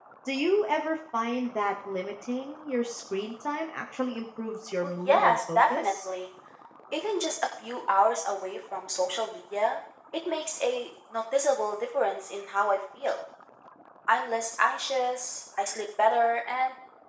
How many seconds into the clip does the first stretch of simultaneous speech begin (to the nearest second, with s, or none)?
5 s